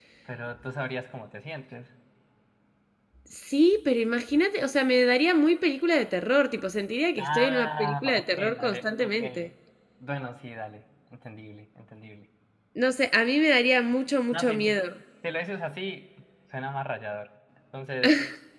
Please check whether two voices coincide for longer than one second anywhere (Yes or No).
Yes